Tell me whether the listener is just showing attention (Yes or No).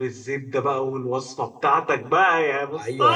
No